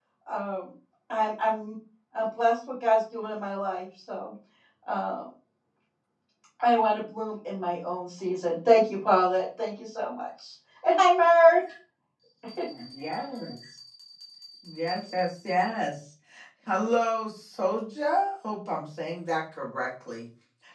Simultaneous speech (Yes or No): No